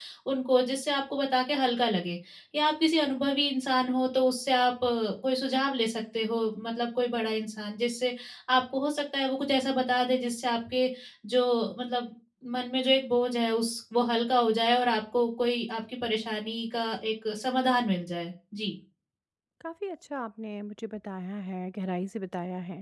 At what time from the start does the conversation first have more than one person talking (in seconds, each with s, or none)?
none